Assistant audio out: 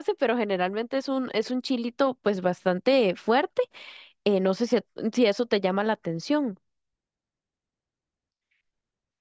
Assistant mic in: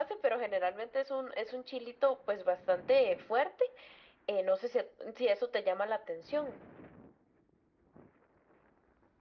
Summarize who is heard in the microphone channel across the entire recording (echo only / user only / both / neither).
echo only